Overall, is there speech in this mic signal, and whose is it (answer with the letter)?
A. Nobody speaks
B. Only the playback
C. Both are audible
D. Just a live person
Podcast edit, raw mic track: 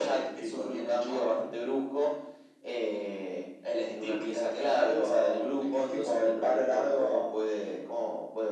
B